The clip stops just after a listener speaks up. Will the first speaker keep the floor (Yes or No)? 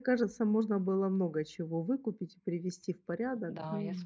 No